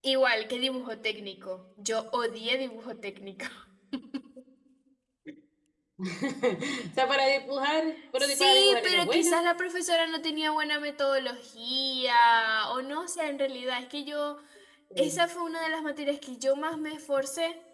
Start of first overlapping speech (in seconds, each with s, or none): 8.0 s